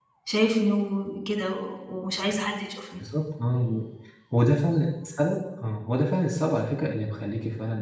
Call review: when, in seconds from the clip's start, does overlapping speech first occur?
none

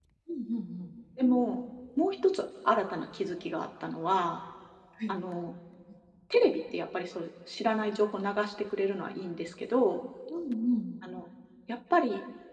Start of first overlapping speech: none

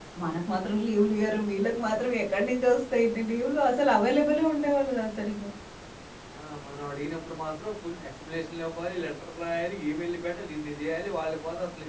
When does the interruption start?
none

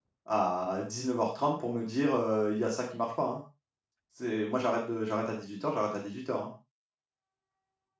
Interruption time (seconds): none

